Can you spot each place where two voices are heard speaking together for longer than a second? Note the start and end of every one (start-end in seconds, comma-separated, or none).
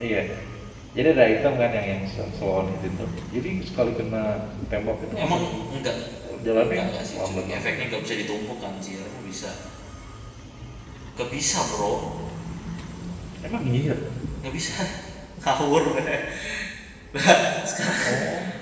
6.6-7.9